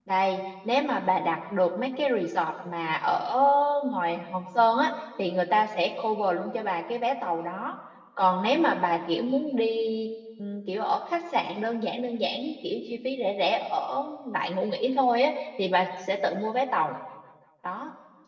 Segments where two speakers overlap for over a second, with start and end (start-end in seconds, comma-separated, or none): none